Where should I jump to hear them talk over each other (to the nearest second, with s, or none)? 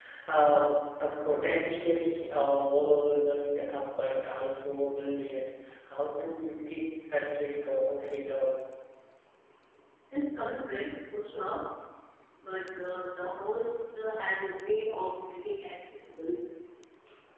none